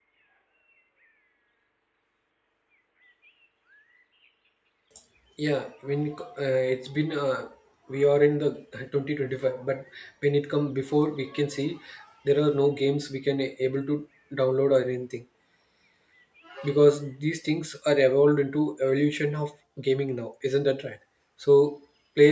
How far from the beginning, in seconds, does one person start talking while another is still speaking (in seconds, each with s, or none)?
none